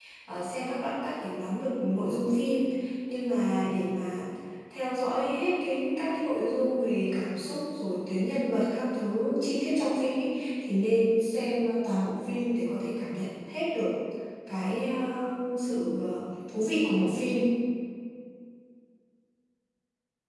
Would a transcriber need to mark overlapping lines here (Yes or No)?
No